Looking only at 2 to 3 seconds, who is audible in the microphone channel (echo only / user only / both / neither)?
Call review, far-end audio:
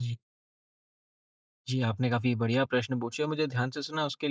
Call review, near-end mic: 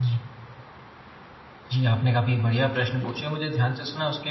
echo only